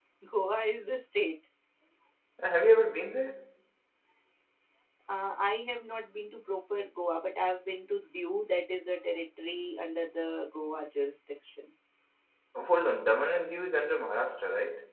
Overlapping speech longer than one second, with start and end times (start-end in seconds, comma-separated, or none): none